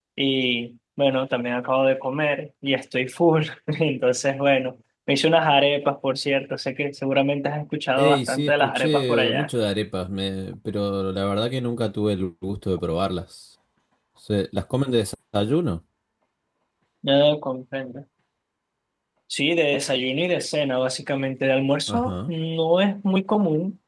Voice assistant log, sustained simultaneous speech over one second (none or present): present